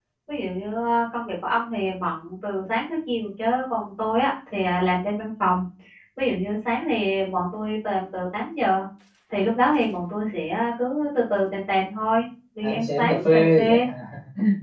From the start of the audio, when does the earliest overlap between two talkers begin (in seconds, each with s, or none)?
12.6 s